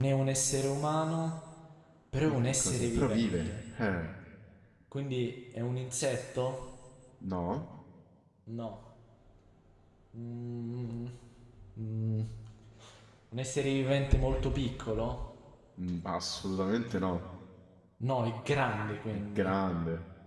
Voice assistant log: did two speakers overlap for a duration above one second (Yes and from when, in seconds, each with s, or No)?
Yes, from 2.3 s